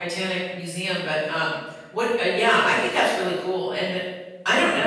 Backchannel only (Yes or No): Yes